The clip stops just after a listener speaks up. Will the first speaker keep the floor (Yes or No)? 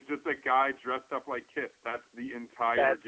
No